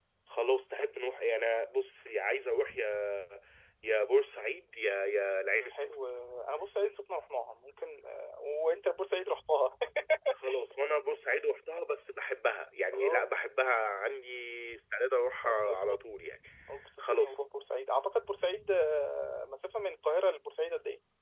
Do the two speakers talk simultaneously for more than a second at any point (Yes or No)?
No